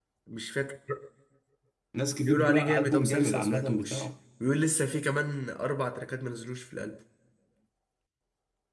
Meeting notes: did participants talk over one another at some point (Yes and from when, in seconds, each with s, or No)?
Yes, from 2.2 s